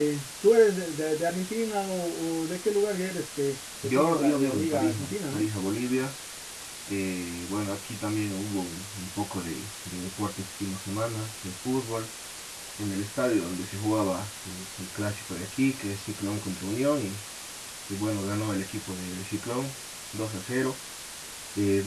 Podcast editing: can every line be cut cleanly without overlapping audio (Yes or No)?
No